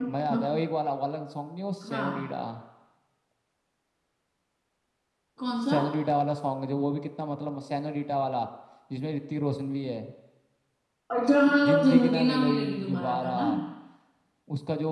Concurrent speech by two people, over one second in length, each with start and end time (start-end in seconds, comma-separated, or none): 11.7-13.3